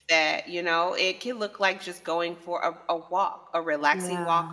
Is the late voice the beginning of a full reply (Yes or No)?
No